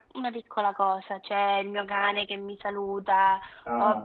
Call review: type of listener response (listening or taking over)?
listening